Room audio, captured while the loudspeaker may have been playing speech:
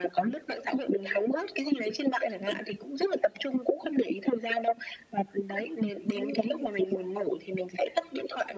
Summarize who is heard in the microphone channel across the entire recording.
both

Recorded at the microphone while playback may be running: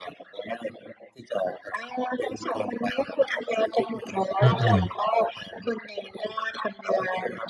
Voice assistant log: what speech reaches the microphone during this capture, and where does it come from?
both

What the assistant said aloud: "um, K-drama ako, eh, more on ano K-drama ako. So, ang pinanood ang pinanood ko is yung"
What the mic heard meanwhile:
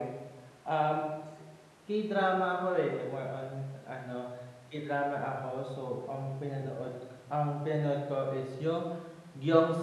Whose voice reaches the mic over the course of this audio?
echo only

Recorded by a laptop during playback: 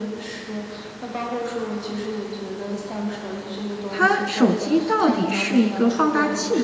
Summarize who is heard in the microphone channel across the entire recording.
both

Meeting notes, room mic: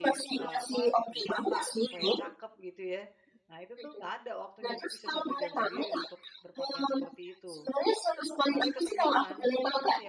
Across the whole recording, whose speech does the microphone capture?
both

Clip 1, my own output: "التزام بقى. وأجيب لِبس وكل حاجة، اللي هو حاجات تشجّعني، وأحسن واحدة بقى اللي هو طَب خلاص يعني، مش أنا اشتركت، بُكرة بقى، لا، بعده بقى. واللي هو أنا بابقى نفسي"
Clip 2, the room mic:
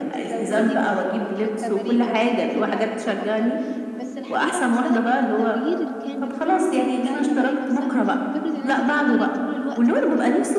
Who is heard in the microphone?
both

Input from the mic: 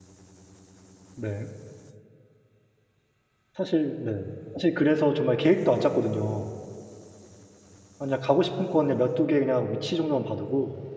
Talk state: user only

